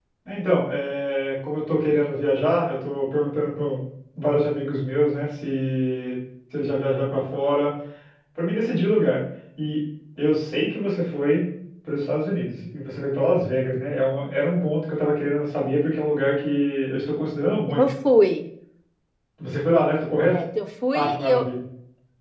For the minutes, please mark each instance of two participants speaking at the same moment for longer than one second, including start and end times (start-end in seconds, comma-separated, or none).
none